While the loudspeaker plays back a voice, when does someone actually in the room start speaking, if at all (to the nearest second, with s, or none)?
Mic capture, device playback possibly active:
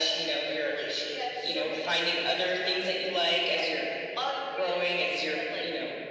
none